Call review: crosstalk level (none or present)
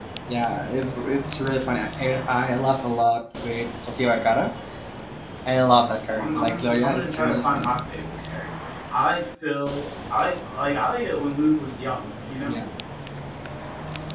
present